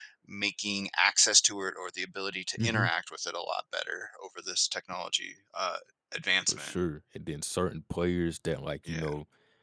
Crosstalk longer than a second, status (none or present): none